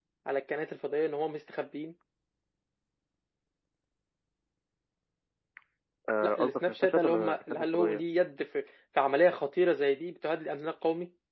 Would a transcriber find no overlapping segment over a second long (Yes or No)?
No